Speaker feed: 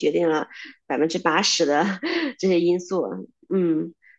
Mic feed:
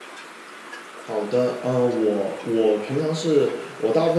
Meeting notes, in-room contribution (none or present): present